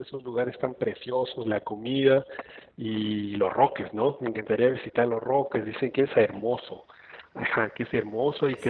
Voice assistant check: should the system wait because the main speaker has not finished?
Yes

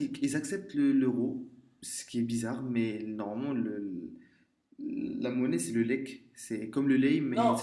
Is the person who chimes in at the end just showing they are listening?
No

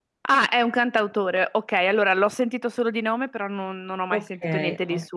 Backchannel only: No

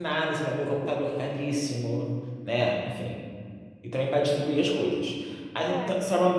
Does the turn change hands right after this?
No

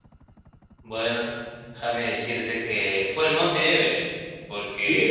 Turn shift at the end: No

